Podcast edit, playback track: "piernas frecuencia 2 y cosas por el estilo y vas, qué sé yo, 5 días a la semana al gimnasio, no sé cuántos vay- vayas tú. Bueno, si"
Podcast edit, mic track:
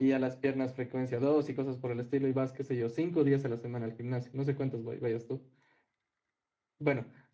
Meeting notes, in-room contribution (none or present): none